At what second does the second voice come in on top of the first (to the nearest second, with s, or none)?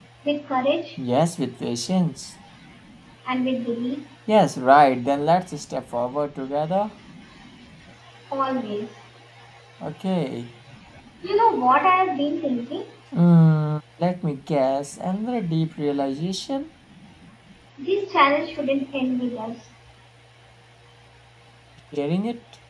none